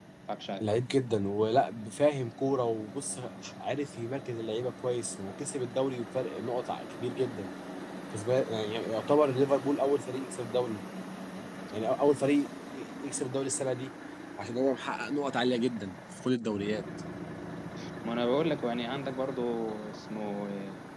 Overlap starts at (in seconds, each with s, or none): none